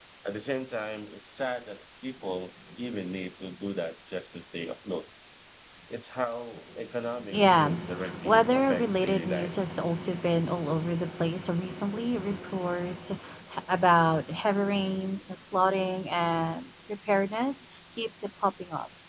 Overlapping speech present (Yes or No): Yes